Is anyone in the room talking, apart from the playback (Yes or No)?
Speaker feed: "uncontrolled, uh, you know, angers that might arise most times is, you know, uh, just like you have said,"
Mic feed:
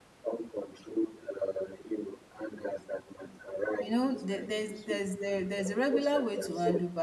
Yes